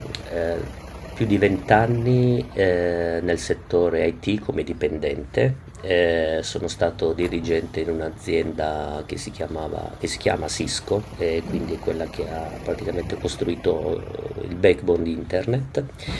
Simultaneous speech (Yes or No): No